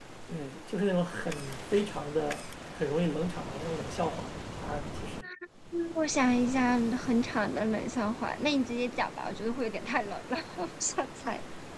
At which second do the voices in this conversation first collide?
none

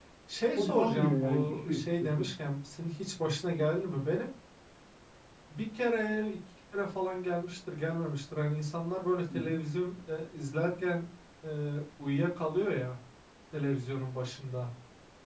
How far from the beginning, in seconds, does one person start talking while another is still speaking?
0.6 s

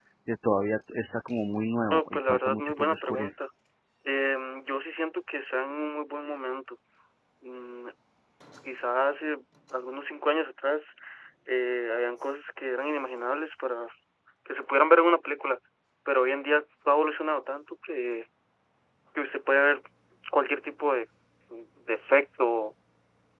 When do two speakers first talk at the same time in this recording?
1.9 s

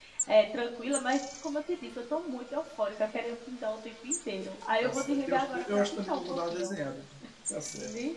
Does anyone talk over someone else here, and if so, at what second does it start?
4.8 s

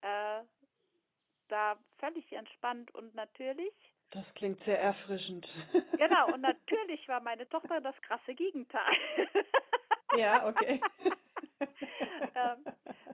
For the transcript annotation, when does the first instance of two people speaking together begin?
none

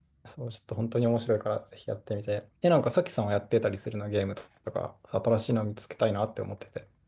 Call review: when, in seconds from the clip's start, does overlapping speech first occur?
none

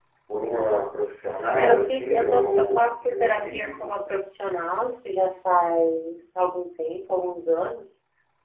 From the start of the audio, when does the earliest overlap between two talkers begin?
1.5 s

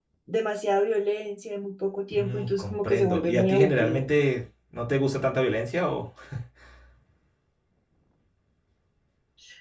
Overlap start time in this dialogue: 2.1 s

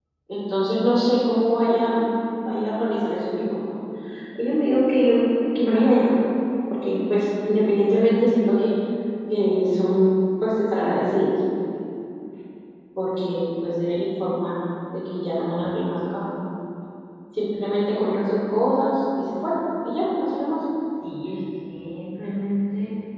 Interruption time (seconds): none

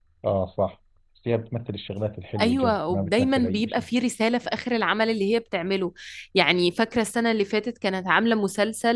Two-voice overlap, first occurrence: 2.4 s

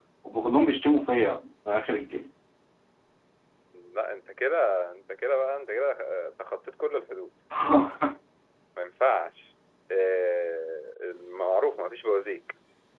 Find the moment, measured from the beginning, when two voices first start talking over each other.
none

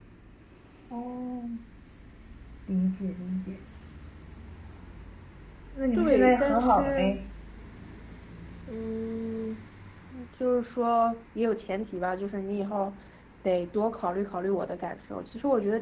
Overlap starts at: 6.0 s

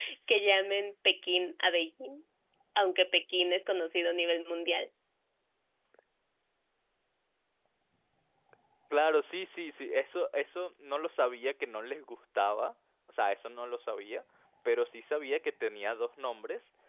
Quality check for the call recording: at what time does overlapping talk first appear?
none

